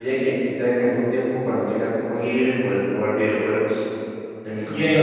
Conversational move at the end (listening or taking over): taking over